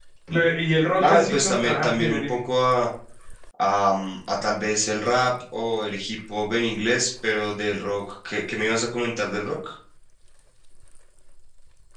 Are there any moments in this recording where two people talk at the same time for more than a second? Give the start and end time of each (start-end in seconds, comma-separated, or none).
1.0-2.4